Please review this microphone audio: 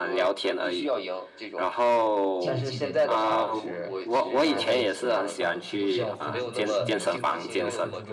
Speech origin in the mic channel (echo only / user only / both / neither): both